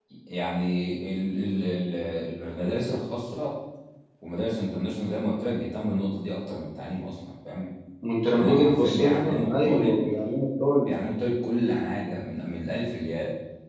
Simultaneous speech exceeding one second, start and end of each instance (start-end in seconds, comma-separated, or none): 8.3-10.0